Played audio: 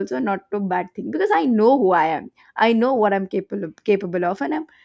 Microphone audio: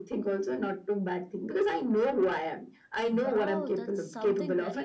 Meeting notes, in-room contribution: present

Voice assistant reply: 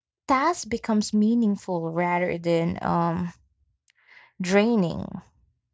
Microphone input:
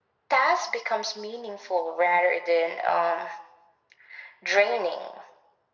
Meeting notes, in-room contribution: none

